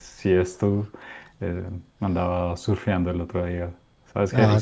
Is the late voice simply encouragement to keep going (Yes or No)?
Yes